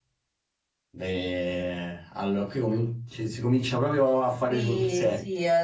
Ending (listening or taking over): taking over